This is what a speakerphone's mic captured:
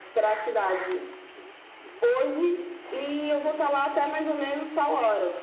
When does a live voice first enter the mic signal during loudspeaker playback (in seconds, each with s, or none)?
none